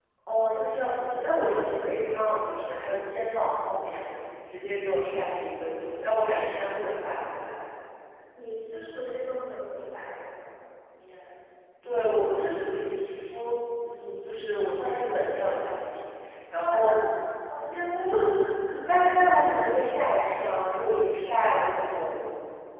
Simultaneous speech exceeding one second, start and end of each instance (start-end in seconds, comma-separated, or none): none